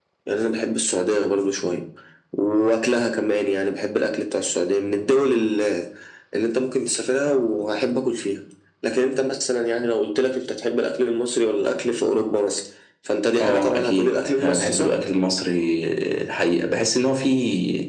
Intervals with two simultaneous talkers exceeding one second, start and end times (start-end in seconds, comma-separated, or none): 13.4-14.9